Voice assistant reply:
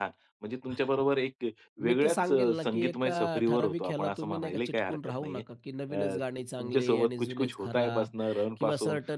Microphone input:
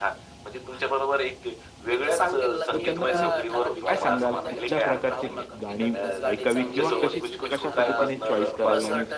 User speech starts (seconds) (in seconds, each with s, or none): 2.7 s